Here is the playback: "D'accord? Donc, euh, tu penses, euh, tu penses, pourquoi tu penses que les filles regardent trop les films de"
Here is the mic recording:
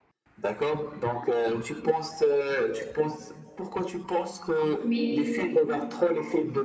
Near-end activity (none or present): present